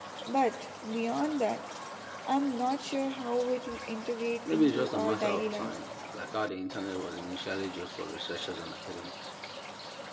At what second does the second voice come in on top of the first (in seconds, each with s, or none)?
4.5 s